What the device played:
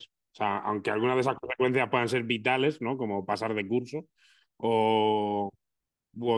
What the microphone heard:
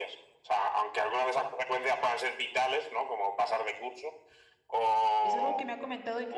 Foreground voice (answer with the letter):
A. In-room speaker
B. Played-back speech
B